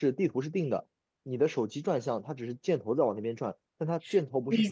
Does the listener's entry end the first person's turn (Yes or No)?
Yes